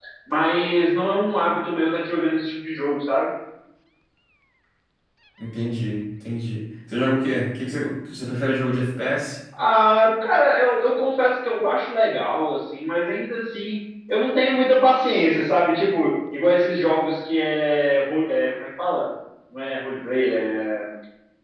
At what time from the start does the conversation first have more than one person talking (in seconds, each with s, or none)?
none